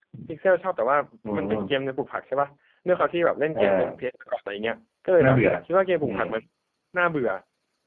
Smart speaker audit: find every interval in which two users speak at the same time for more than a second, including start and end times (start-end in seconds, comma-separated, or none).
none